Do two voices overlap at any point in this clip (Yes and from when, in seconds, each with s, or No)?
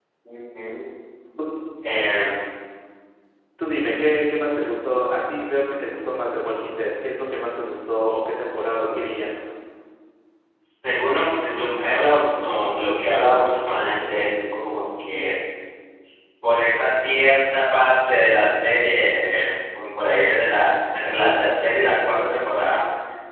No